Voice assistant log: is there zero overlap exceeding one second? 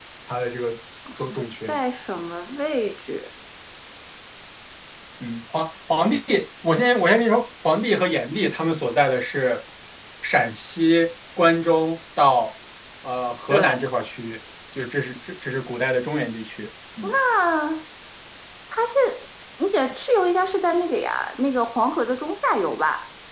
Yes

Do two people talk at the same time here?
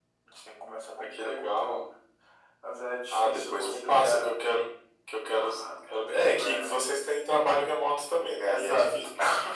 Yes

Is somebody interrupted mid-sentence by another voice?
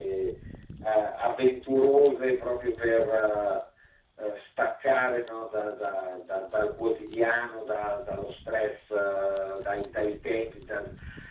No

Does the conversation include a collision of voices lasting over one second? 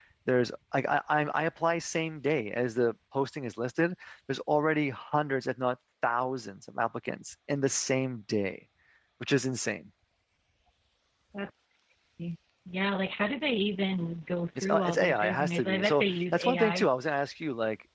Yes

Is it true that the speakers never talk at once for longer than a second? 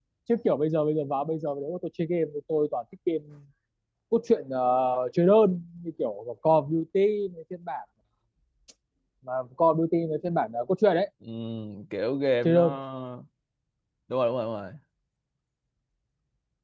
Yes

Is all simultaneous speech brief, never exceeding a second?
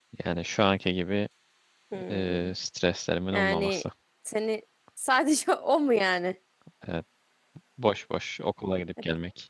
Yes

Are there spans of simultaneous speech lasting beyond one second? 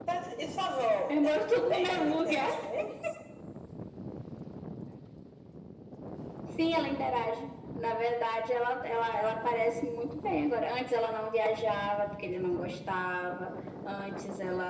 Yes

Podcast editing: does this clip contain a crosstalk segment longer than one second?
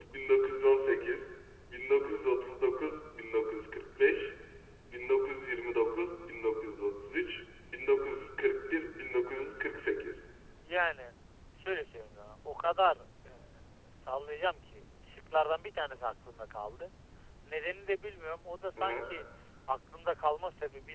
No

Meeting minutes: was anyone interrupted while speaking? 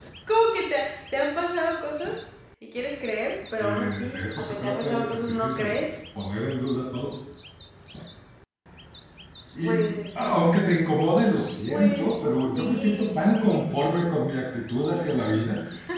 Yes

